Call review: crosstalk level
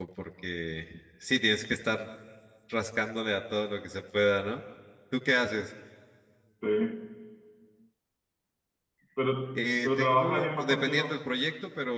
present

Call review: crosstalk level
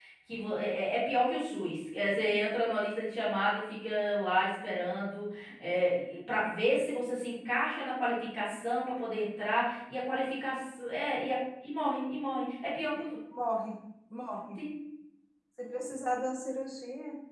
none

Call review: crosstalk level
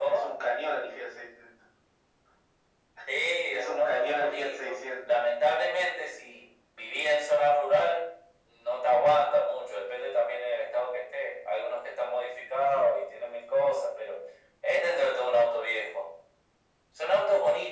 present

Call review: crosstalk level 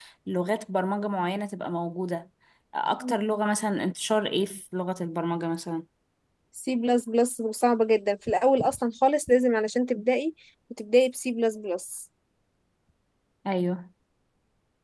none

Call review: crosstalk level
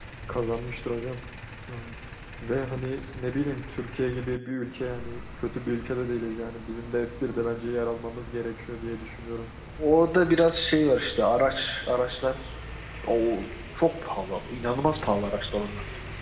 none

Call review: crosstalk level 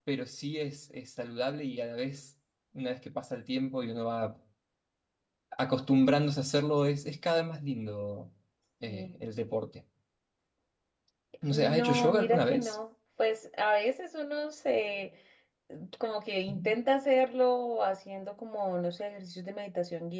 present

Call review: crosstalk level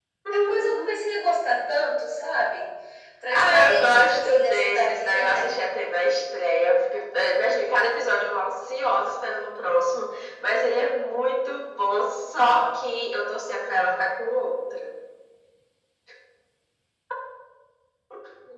present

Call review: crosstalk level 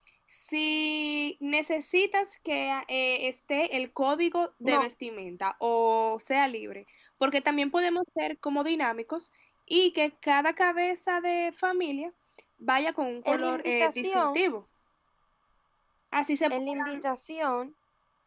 present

